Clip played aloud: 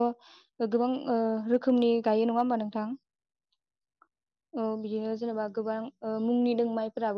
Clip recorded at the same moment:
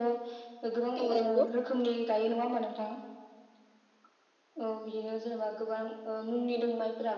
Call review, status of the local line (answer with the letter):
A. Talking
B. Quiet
A